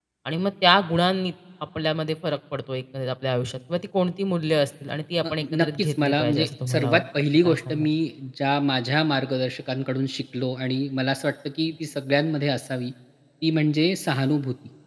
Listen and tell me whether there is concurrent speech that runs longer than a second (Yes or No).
Yes